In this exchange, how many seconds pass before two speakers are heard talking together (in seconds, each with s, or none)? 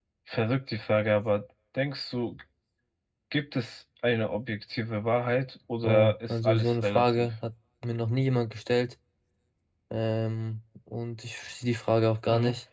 5.8 s